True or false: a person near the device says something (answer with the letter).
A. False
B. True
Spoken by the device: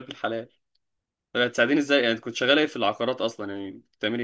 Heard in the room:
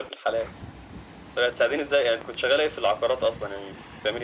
A